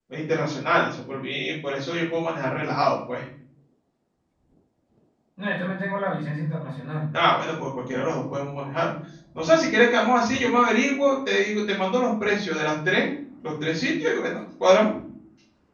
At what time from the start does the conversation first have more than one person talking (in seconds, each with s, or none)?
none